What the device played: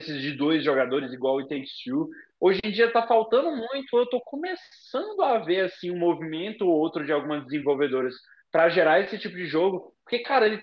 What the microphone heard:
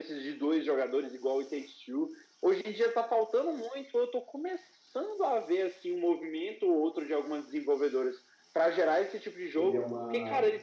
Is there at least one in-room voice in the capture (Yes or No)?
Yes